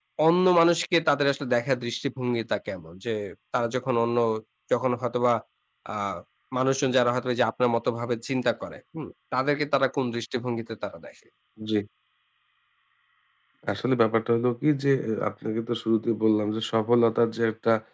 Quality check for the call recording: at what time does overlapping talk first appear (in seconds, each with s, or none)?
none